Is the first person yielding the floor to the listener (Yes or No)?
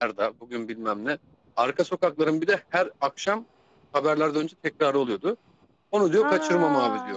No